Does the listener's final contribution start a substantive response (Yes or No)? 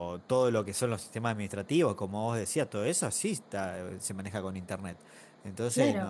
Yes